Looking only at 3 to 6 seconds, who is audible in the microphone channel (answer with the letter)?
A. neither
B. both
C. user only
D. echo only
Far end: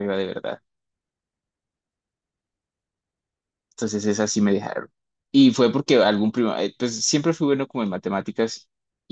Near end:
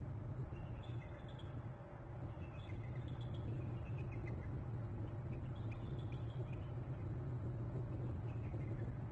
A